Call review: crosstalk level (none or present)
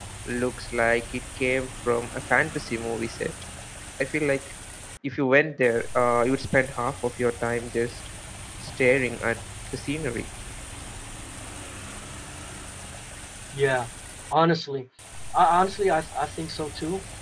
none